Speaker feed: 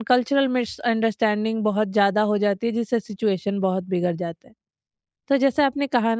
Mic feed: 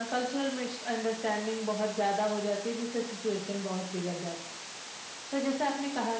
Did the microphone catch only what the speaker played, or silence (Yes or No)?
Yes